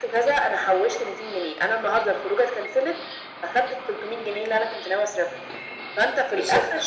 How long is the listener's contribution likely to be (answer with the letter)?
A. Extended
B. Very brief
B